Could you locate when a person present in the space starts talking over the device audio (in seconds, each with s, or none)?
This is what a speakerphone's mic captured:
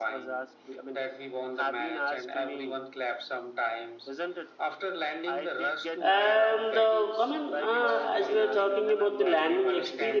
6.0 s